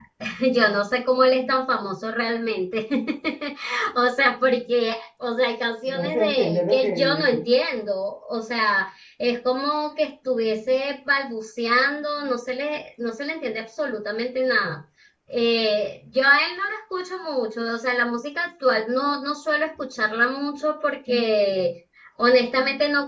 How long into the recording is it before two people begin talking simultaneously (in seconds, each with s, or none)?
5.9 s